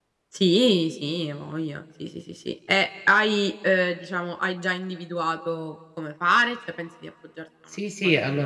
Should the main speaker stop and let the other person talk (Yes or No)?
Yes